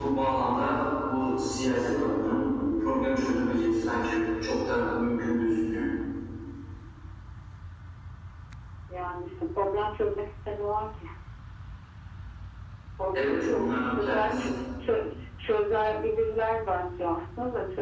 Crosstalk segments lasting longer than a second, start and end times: 13.1-14.4

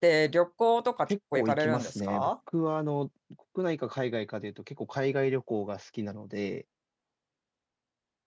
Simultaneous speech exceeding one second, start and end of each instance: 1.1-2.3

